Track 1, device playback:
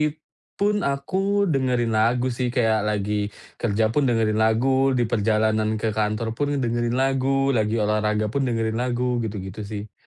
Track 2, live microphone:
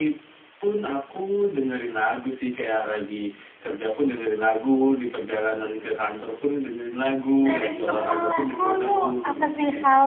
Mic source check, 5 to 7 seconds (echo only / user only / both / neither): echo only